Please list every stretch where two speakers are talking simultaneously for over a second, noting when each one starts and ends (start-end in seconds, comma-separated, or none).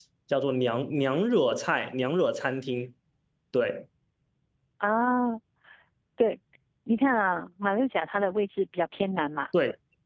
none